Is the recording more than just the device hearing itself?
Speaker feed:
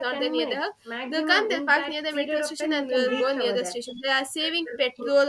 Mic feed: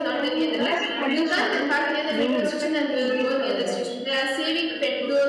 Yes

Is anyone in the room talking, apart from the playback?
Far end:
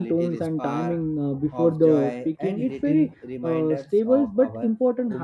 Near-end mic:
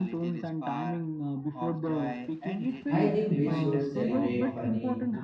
Yes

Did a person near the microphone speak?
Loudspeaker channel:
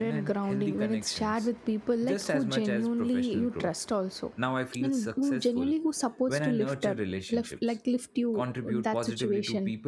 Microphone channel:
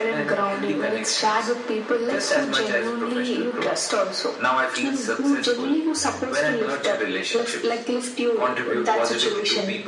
Yes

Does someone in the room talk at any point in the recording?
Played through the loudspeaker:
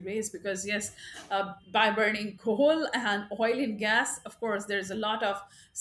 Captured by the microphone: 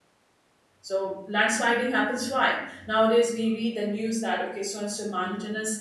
Yes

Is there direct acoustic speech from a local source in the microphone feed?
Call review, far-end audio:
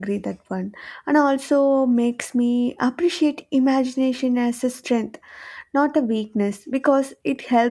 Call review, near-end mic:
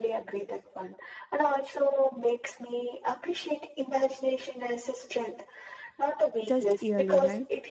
Yes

